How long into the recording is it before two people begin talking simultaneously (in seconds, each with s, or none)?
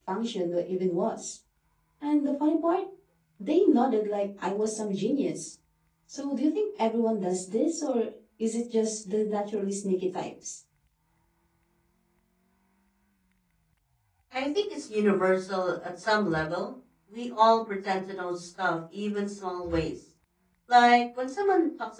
none